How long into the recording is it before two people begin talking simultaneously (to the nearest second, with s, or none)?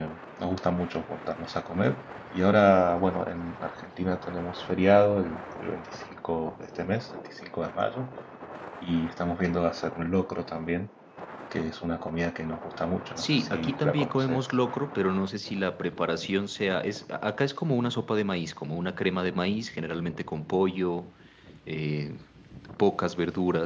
13 s